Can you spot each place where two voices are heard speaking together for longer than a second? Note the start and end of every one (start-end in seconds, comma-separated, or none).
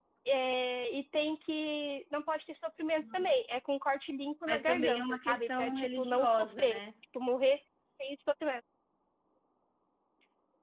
4.5-6.8